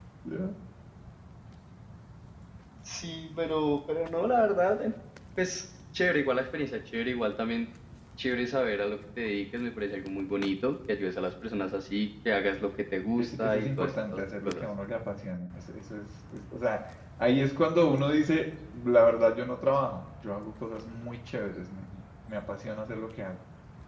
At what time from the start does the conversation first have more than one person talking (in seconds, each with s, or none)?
13.2 s